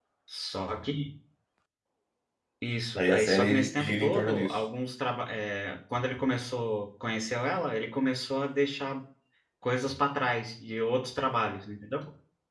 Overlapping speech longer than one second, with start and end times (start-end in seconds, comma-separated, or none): 3.0-4.6